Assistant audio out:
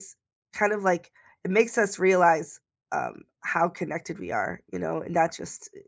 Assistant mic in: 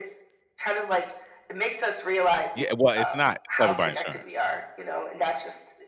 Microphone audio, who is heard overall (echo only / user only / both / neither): both